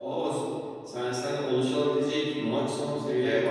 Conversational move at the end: taking over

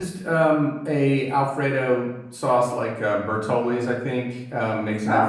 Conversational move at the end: listening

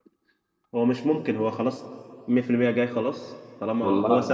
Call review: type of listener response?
listening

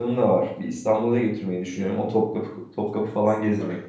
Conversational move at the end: taking over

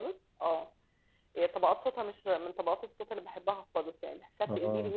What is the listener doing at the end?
listening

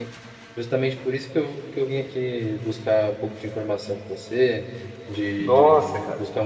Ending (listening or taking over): listening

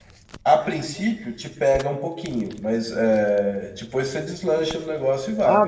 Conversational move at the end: taking over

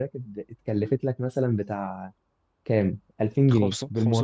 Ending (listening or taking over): taking over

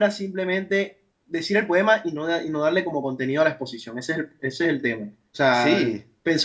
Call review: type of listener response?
listening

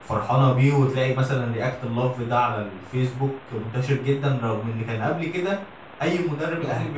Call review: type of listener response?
listening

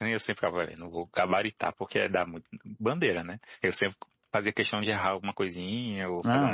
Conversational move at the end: listening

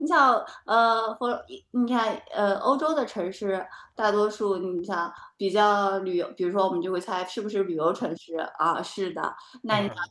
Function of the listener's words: listening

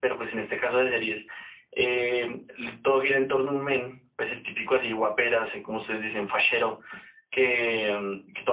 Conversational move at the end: listening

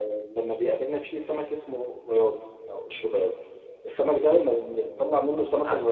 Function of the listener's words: listening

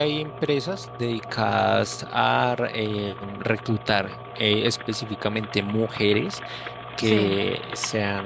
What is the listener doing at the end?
listening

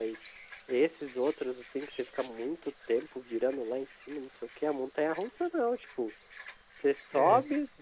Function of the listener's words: listening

